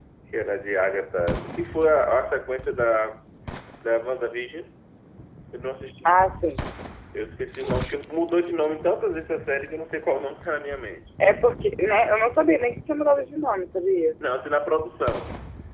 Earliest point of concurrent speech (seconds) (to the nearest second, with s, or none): none